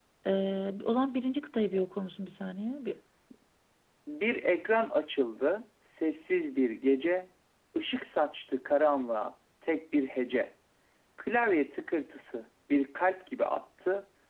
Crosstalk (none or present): none